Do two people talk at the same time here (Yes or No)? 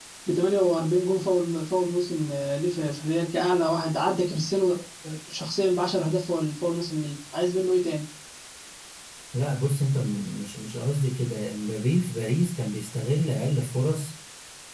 No